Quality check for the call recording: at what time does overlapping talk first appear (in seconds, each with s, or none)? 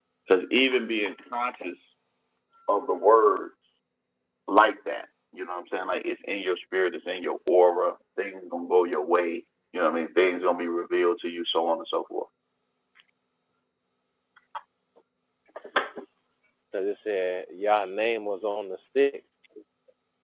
none